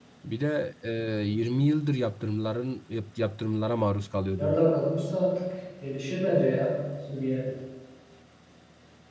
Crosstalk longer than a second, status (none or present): none